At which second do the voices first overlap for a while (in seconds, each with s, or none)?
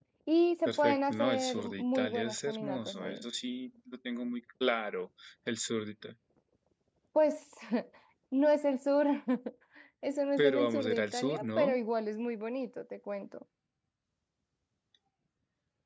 0.7 s